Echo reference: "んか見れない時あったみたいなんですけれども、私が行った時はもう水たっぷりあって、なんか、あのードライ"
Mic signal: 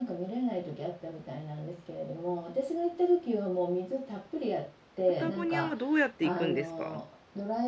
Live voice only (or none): パタゴニアはどうやって行くんですか